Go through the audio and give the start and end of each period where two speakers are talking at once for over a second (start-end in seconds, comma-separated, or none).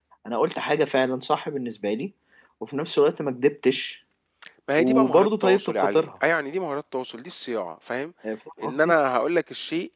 4.8-6.1